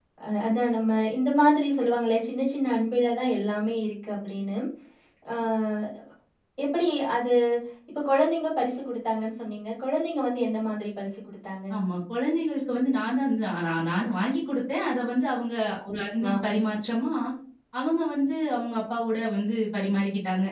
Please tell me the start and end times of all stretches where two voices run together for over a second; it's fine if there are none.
none

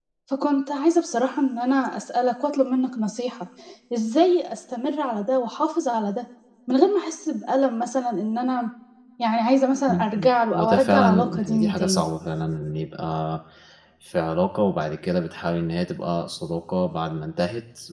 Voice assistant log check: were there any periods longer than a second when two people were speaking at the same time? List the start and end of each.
9.9-12.0

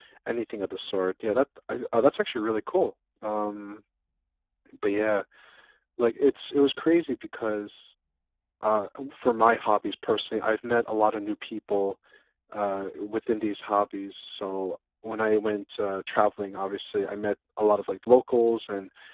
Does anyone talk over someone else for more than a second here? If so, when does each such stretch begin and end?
none

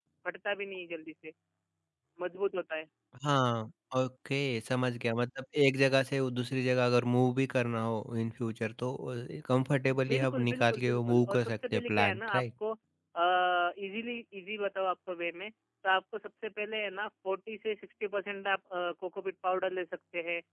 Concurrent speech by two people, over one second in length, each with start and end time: 9.9-12.4

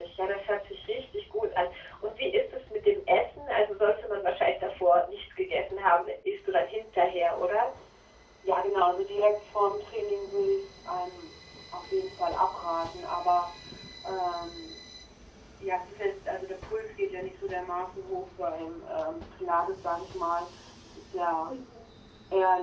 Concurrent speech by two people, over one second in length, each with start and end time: none

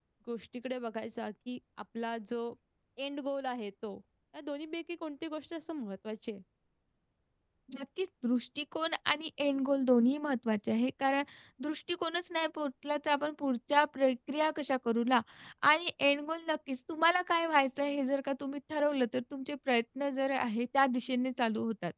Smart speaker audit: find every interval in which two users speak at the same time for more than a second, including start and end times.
none

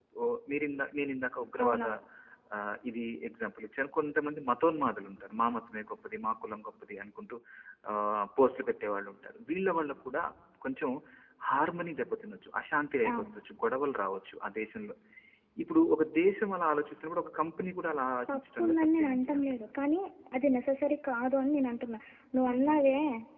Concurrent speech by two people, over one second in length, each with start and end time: 18.3-19.7

